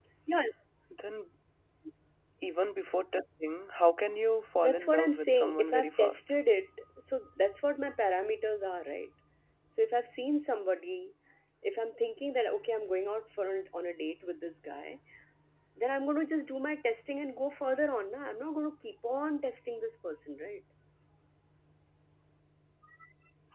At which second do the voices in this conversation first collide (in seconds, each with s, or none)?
4.6 s